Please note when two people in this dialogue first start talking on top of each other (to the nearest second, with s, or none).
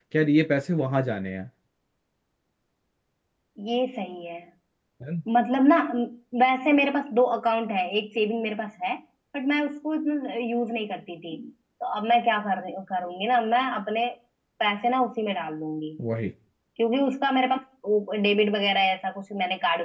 none